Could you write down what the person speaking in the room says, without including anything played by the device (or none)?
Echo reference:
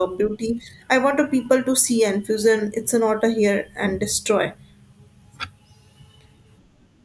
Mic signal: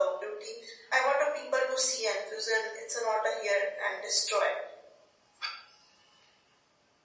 none